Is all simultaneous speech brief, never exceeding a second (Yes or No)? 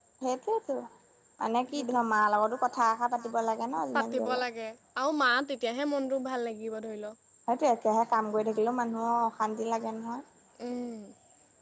Yes